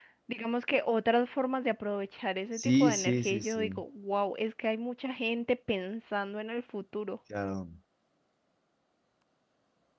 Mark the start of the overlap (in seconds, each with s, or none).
2.5 s